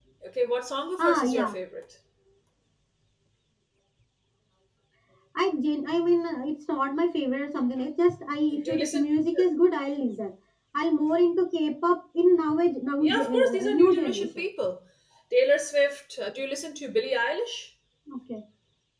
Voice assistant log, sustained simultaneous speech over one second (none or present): present